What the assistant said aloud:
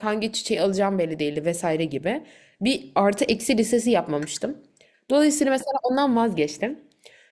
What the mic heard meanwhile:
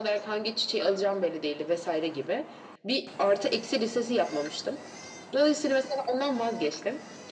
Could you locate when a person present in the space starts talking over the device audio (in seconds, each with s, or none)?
none